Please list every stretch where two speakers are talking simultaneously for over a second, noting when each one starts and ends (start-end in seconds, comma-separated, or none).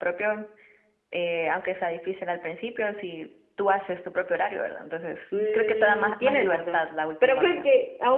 5.5-6.8